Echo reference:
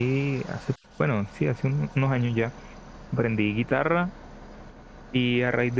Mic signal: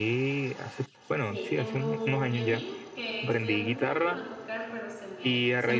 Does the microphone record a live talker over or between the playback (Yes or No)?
Yes